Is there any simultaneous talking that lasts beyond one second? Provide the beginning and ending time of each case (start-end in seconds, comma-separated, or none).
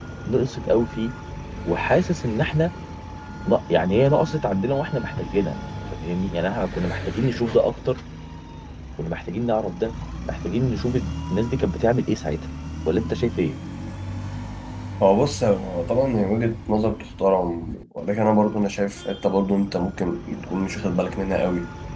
none